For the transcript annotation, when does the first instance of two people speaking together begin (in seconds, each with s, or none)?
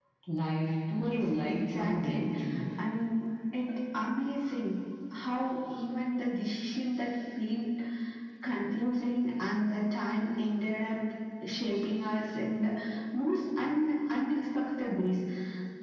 1.0 s